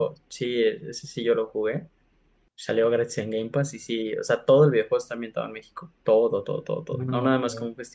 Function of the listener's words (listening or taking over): listening